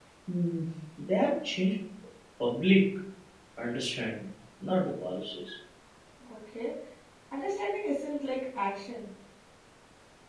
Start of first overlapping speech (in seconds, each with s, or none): none